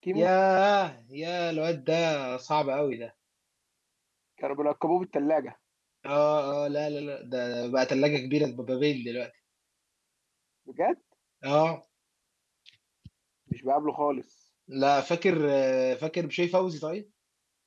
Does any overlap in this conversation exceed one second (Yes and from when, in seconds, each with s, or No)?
No